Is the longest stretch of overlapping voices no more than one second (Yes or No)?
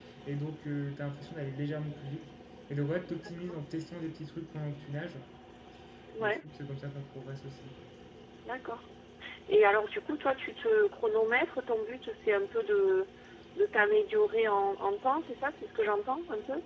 Yes